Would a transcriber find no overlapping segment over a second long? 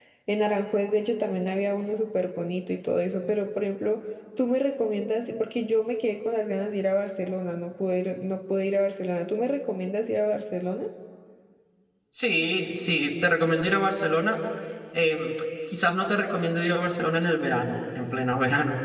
Yes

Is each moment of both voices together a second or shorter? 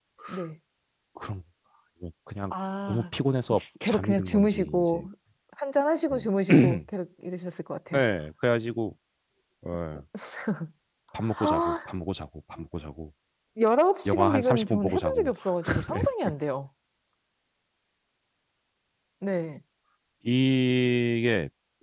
No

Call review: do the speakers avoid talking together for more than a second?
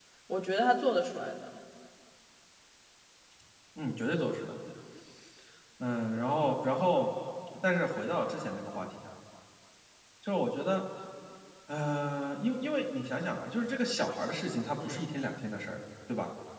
Yes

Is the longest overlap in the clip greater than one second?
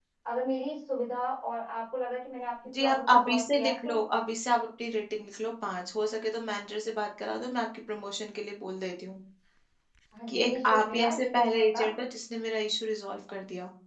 Yes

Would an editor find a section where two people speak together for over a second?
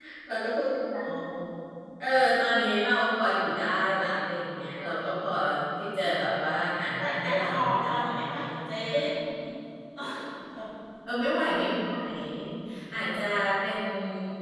Yes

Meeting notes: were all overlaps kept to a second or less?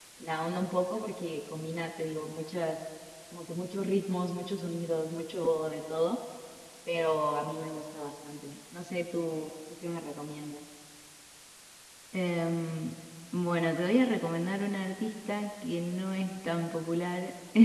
Yes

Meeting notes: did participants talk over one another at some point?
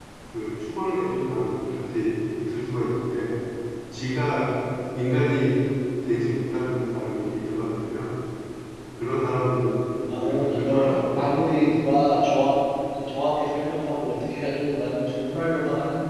Yes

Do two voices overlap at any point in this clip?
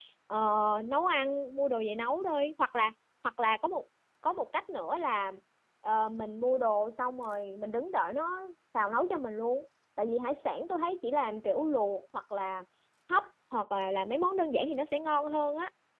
No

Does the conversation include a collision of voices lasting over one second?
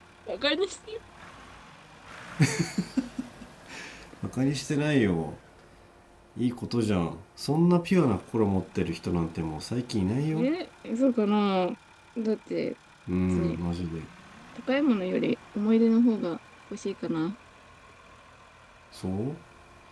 No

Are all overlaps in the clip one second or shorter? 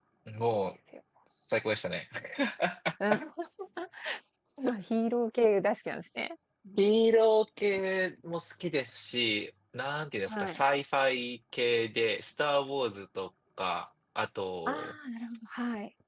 Yes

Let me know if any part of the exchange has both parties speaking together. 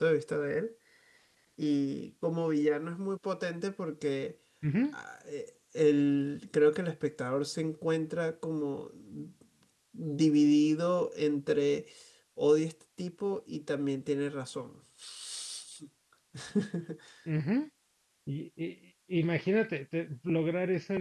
No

